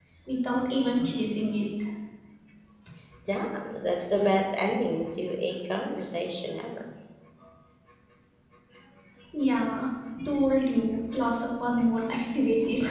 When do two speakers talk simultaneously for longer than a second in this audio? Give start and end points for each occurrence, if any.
none

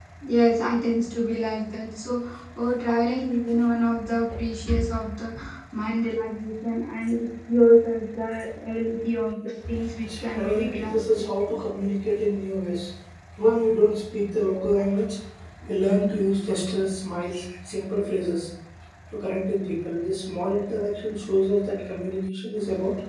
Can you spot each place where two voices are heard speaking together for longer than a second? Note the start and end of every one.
10.0-11.3

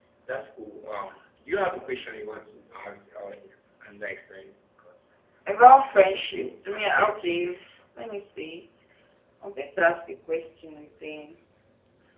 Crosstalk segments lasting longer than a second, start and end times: 5.8-7.5

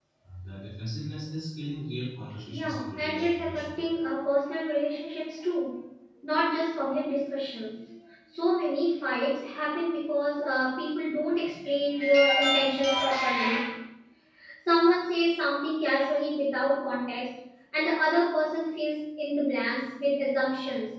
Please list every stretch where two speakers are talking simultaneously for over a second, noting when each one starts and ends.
2.5-3.8

